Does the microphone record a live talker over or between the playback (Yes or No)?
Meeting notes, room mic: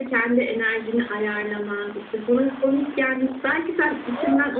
No